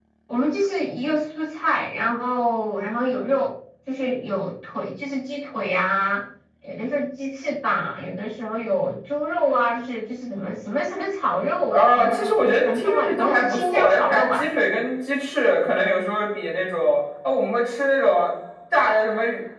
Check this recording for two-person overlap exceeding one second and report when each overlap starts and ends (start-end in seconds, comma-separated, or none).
11.7-14.5